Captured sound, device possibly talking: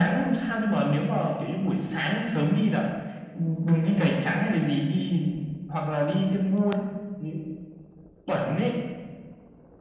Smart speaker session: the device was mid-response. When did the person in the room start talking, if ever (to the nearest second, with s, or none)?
none